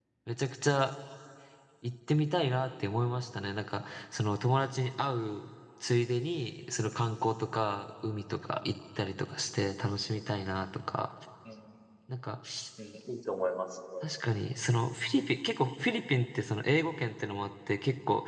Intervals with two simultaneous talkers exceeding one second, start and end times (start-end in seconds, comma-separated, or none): none